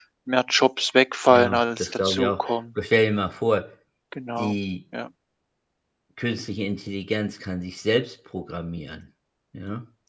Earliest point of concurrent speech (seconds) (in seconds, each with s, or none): 1.3 s